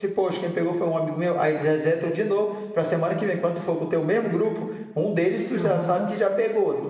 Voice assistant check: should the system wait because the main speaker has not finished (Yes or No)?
Yes